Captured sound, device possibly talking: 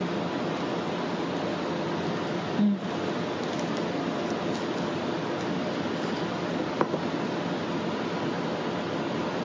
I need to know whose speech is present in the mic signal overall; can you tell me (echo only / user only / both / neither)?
user only